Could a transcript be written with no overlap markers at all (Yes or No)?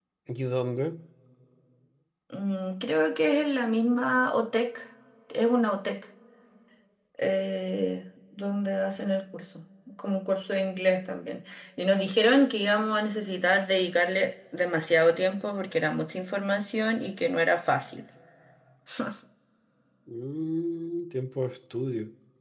Yes